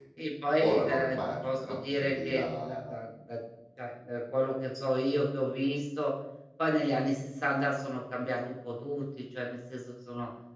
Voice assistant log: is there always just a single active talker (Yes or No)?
No